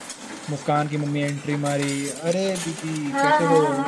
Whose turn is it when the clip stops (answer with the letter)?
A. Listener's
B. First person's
A